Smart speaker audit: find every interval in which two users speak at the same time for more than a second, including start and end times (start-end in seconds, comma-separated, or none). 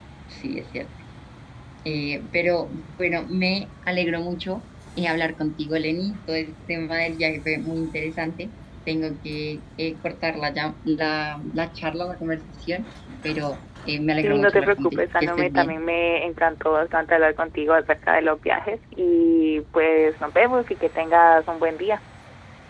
14.2-15.8